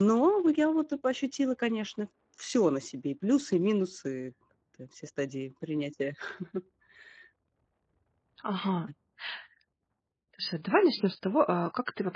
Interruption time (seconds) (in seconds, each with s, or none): none